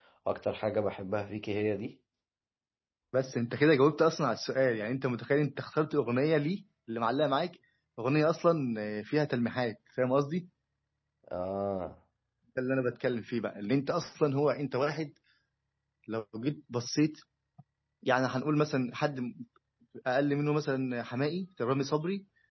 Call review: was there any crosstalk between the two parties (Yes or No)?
No